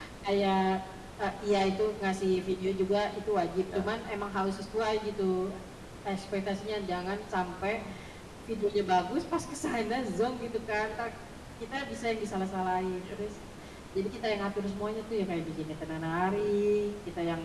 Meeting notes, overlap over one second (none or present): none